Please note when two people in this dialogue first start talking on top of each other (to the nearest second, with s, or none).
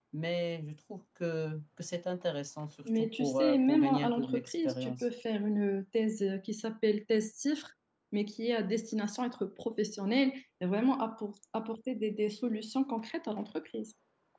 3 s